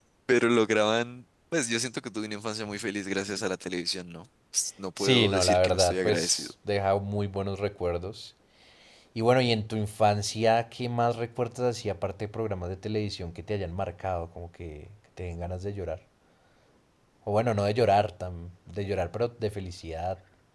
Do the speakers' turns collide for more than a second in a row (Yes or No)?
Yes